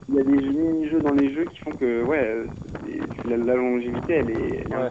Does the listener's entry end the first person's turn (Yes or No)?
Yes